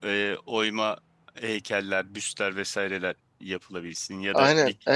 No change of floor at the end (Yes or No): No